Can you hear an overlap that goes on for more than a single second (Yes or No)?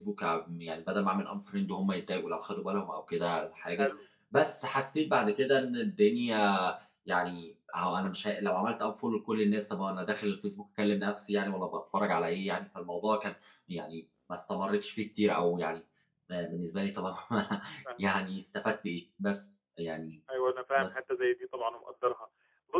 No